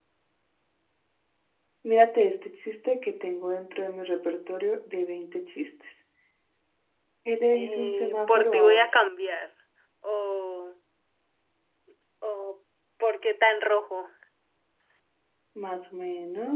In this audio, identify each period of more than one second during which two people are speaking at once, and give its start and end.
7.6-9.0

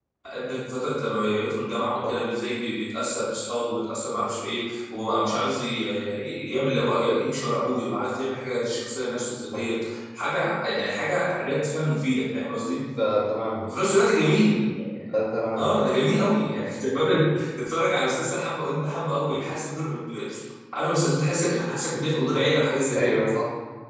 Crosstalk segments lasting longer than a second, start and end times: none

